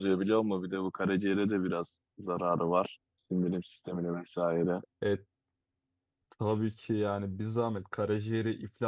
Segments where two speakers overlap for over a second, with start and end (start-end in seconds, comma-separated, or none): none